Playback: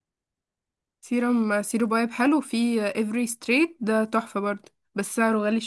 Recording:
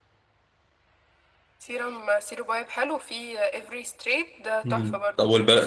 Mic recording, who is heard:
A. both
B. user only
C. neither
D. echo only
A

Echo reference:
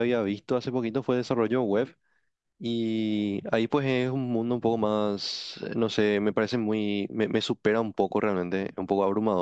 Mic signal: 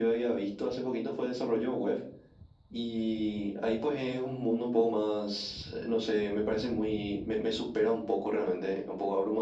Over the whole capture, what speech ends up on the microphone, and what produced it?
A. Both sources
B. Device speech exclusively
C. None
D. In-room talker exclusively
B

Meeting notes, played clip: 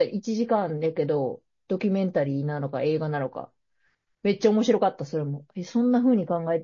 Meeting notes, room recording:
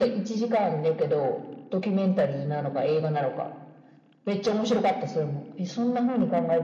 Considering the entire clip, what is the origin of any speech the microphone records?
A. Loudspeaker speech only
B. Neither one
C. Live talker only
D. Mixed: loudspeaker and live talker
A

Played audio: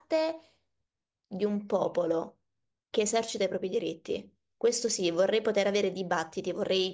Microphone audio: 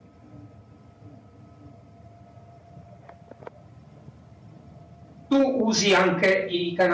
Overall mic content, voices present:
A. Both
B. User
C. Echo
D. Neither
B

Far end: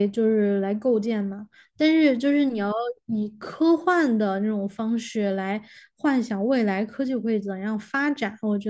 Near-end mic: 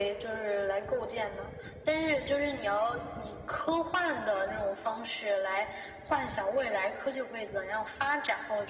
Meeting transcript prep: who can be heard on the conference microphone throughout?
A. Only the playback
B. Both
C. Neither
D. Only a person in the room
A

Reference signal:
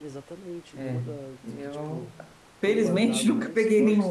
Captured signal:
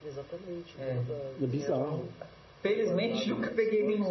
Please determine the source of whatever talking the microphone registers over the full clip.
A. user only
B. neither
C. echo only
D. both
D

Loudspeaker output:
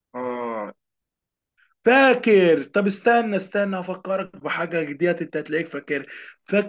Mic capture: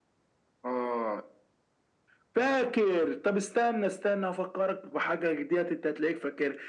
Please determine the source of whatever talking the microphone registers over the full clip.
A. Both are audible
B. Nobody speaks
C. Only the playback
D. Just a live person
C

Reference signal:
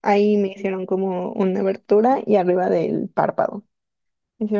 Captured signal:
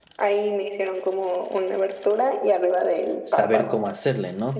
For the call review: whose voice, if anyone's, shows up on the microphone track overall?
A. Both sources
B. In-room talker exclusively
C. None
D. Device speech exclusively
A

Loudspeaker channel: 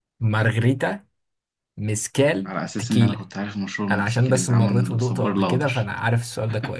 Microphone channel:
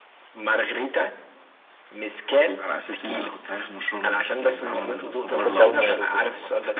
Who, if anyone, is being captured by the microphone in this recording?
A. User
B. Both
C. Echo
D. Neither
B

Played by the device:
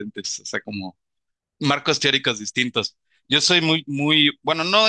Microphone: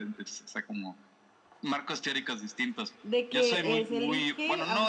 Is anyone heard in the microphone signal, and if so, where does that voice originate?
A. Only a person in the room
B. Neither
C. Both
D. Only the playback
C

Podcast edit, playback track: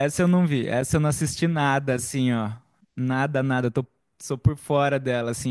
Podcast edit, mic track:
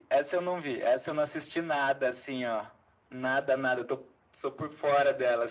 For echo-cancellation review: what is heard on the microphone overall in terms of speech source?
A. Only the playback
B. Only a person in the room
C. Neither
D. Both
A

